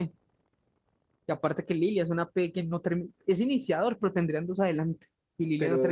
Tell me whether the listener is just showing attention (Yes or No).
No